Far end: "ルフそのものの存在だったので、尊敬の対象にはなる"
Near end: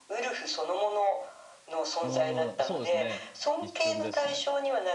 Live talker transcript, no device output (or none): うーん、そうですね。一瞬ですね。